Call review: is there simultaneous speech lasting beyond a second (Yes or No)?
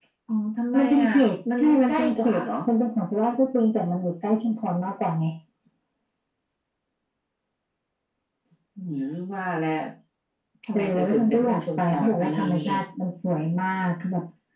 Yes